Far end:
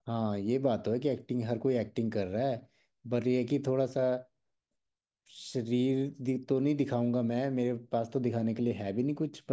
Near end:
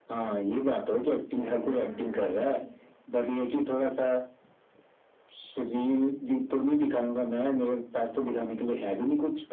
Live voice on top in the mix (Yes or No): No